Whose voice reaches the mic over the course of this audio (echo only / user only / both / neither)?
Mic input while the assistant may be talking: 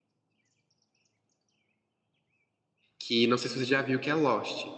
user only